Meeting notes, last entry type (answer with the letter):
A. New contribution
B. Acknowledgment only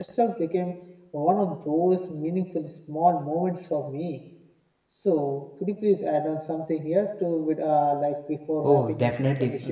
A